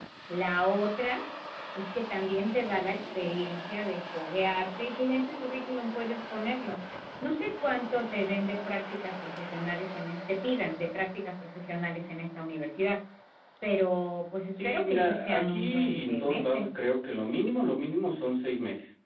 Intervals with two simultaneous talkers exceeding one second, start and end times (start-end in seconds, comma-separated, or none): 14.5-16.6